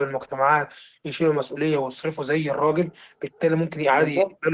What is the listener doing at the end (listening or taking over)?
listening